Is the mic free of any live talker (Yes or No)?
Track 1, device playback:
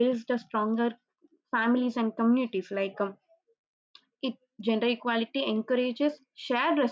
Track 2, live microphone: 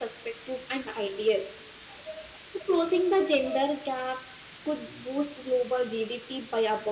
No